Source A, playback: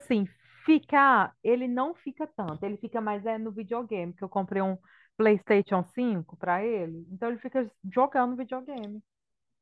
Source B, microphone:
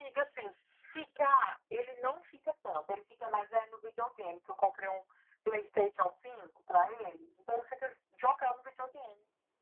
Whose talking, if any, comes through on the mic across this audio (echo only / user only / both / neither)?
echo only